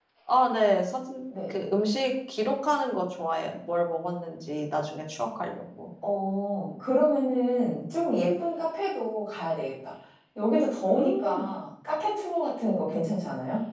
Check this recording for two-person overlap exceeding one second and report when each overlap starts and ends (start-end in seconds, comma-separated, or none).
none